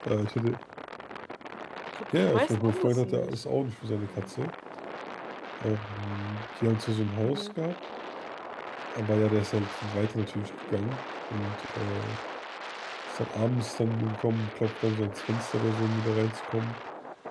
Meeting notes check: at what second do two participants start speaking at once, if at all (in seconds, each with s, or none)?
2.2 s